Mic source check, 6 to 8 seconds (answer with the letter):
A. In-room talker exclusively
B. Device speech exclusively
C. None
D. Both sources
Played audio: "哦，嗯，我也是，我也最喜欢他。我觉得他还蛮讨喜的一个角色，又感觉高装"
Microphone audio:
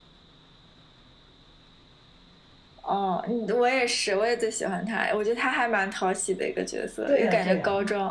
D